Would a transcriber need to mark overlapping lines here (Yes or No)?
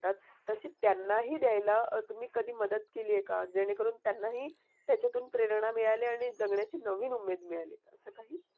No